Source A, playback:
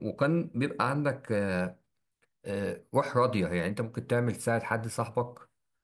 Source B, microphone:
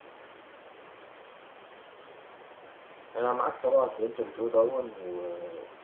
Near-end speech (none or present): present